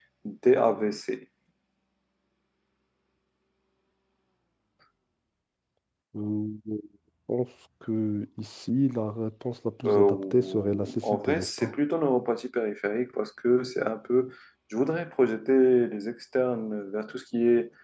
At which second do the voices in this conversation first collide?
9.8 s

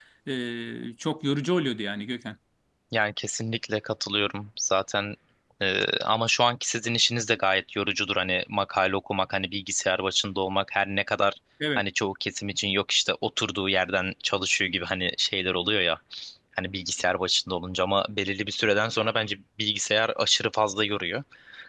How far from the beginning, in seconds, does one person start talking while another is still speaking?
none

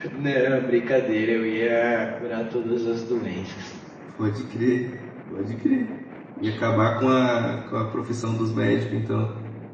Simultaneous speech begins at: none

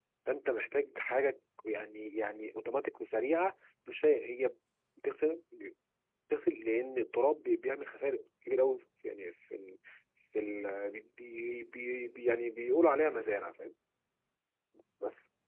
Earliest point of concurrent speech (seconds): none

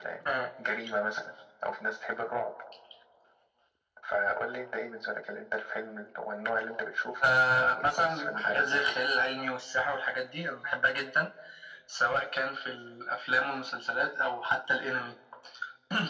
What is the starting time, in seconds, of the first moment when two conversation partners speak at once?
7.2 s

